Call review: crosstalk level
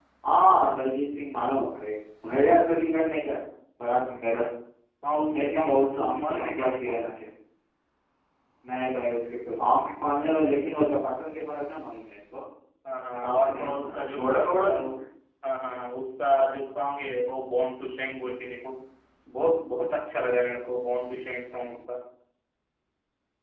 present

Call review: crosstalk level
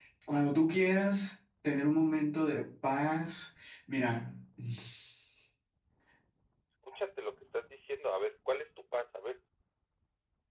none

